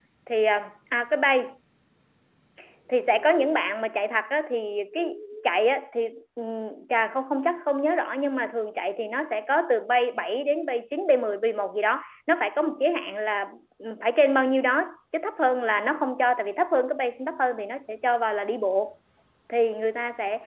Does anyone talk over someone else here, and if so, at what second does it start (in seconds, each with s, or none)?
none